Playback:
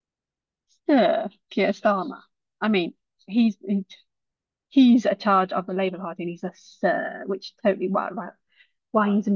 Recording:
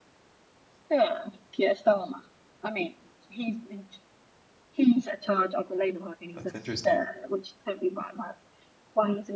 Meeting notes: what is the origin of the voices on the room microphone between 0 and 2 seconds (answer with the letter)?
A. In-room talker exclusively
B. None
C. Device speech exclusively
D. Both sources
C